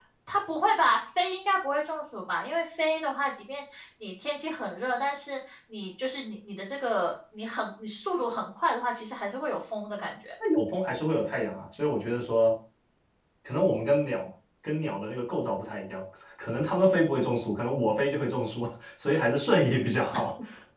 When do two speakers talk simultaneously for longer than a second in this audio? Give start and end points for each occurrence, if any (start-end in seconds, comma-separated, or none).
none